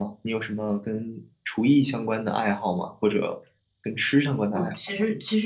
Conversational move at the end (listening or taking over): taking over